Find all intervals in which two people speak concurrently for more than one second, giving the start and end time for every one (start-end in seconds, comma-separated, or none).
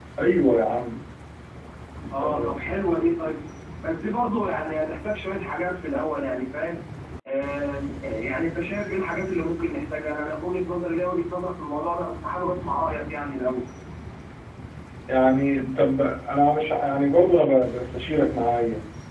none